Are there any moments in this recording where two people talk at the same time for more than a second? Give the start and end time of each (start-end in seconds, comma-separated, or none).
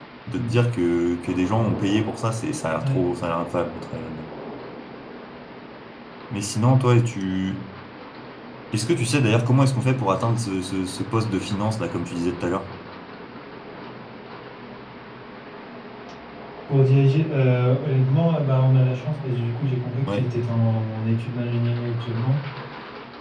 none